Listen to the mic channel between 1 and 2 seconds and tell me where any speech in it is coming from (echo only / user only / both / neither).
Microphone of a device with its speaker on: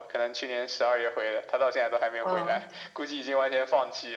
echo only